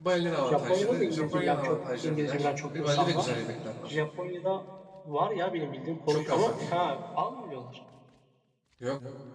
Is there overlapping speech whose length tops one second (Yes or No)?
Yes